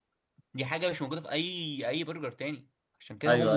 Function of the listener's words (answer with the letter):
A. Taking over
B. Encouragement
A